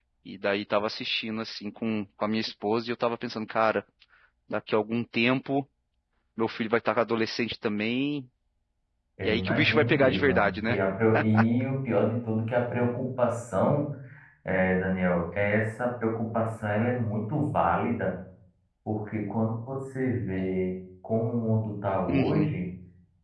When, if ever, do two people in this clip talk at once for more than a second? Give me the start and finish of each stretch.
9.2-10.8

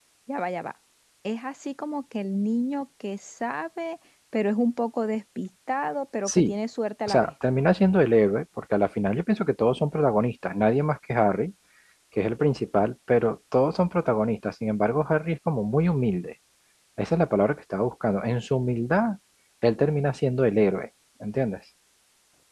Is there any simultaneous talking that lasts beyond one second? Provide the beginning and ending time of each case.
none

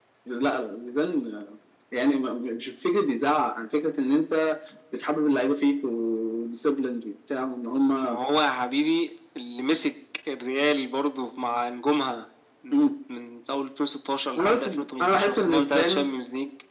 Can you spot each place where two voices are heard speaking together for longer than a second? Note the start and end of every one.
14.3-16.1

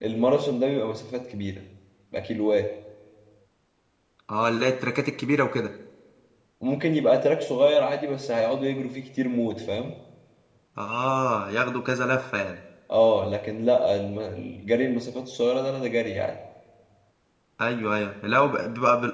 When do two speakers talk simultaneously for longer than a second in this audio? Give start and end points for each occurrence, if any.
none

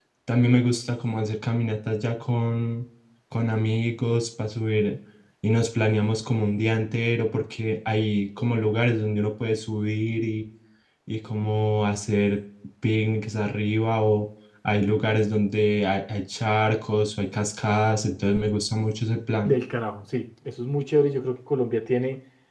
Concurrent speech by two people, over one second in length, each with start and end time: none

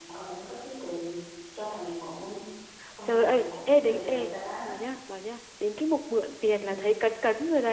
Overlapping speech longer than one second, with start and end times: 3.0-4.3

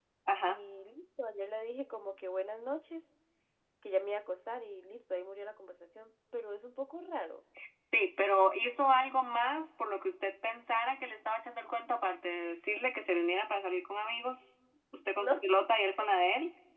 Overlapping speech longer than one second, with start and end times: none

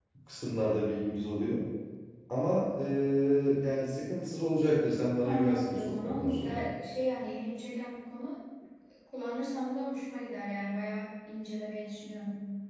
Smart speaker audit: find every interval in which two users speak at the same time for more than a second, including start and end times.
5.2-6.6

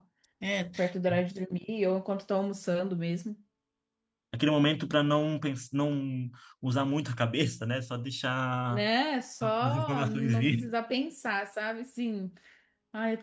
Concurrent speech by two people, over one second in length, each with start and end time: 9.4-10.7

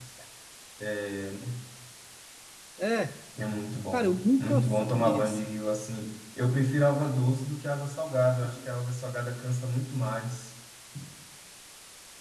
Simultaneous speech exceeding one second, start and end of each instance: 3.9-5.5

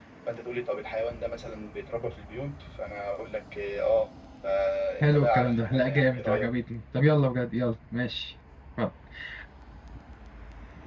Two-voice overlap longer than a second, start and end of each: 5.0-6.5

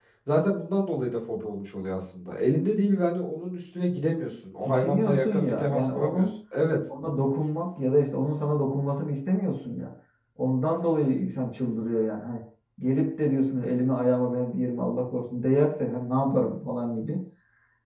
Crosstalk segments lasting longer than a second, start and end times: 4.7-6.3

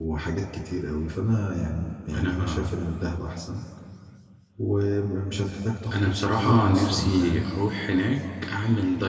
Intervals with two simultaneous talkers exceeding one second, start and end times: 5.9-7.5

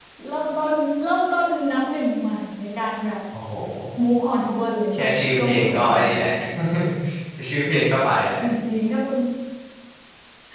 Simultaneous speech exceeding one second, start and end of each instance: 4.9-6.2

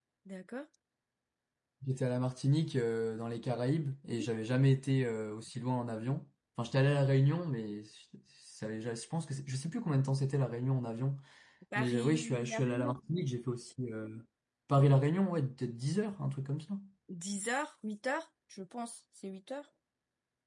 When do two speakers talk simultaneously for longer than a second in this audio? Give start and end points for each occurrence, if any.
11.8-13.0

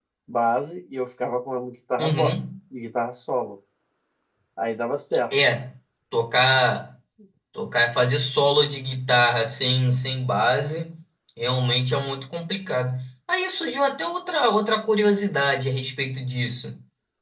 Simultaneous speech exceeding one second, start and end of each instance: none

